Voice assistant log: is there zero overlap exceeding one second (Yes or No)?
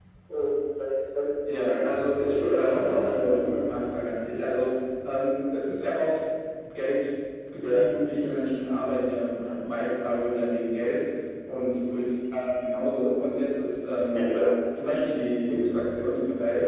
No